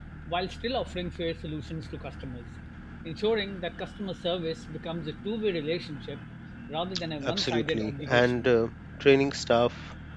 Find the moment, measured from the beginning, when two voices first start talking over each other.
7.2 s

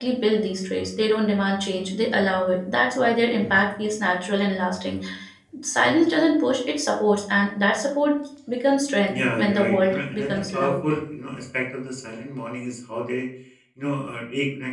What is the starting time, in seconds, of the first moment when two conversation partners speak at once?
9.1 s

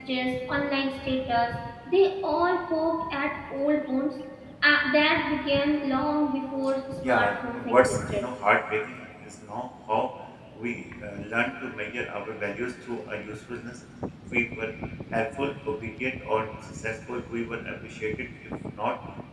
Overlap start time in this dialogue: 7.0 s

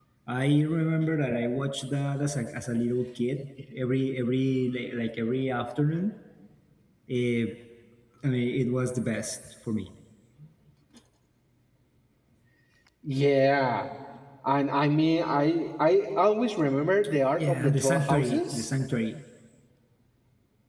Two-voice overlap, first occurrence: 17.4 s

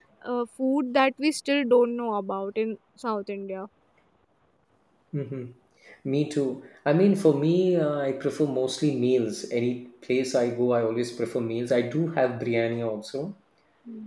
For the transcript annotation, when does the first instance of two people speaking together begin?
none

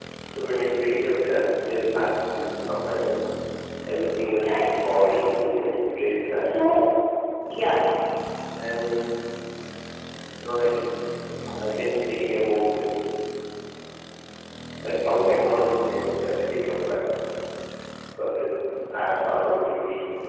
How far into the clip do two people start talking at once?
4.4 s

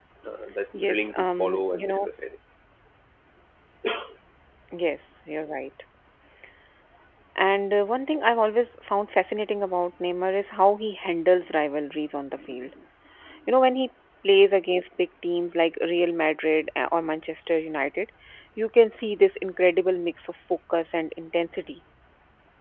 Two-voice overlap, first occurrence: 0.8 s

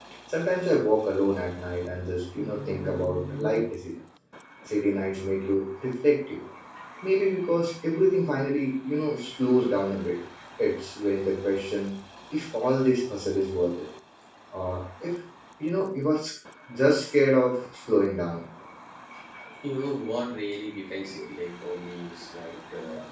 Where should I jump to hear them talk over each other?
none

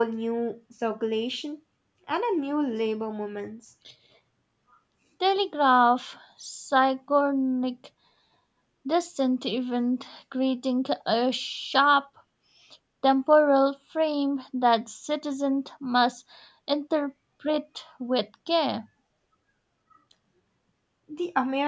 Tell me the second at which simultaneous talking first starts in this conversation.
none

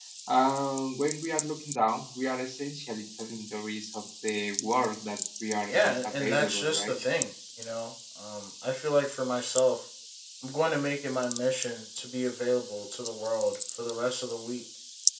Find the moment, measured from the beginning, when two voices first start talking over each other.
5.7 s

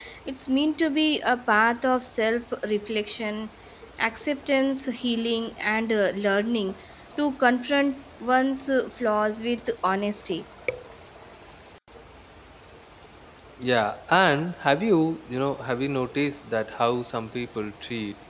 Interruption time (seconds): none

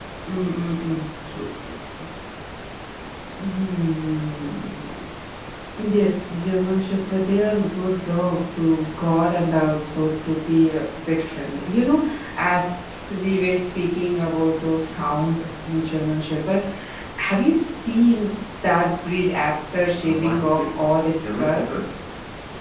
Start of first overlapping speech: 20.0 s

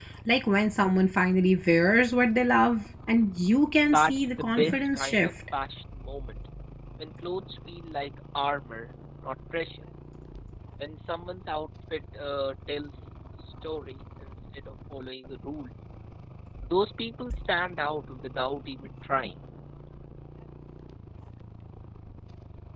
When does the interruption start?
3.9 s

